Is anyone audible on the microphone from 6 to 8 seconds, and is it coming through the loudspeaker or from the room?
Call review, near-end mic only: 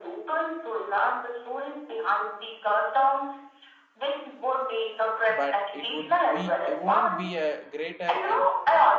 both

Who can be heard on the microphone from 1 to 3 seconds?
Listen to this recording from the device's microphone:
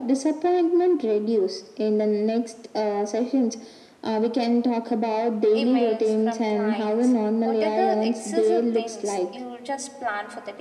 echo only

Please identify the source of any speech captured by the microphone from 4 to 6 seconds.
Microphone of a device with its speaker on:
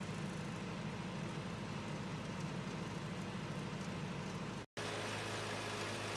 neither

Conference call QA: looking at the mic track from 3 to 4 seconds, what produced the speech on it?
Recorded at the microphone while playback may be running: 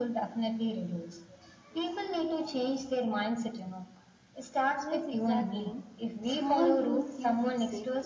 echo only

